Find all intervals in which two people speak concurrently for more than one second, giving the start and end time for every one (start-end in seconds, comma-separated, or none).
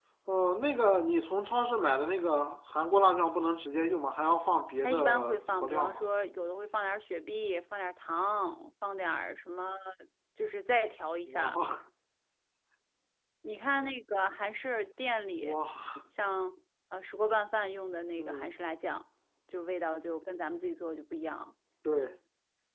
4.8-6.1